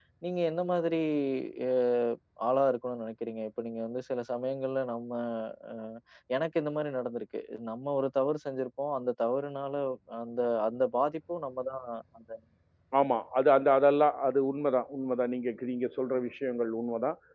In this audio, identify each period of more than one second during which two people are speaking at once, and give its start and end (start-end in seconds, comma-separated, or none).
none